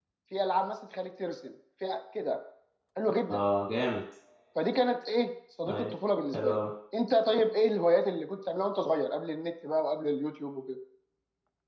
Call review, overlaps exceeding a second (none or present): none